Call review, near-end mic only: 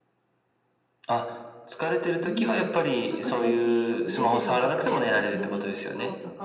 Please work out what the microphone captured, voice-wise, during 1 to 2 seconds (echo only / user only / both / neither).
echo only